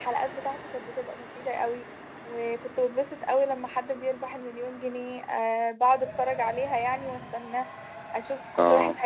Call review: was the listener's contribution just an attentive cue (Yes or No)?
Yes